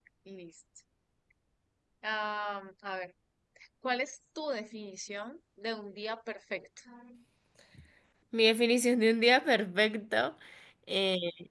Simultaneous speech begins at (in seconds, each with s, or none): none